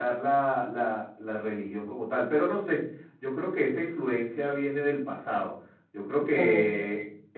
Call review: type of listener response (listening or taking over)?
listening